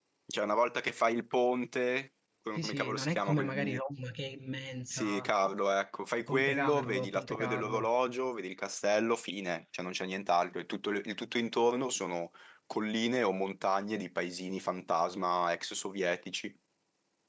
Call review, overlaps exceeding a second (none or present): present